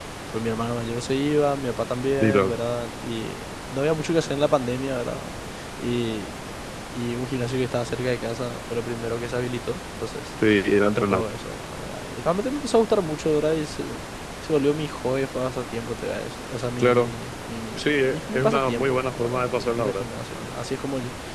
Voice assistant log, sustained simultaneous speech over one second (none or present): present